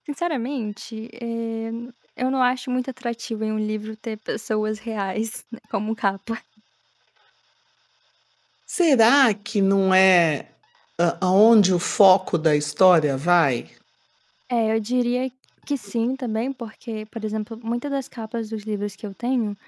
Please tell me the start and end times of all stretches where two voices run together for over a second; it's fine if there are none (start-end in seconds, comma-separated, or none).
none